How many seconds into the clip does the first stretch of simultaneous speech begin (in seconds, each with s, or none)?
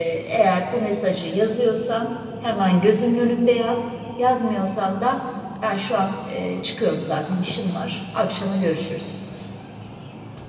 none